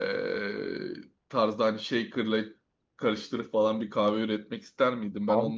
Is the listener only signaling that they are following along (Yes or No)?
No